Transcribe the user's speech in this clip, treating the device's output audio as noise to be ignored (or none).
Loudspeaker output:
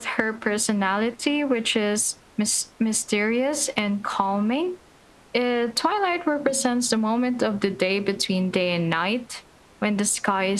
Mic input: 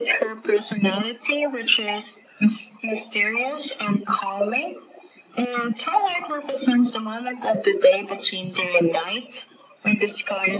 none